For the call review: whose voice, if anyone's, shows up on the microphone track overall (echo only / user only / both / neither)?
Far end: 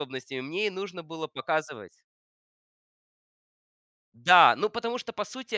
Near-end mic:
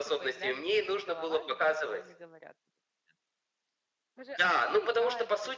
both